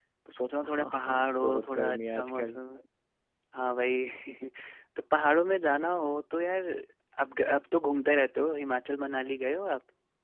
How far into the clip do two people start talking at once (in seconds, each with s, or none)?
0.7 s